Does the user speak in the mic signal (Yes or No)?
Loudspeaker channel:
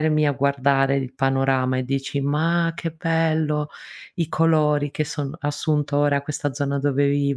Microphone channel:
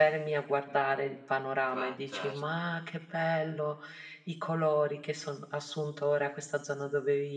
Yes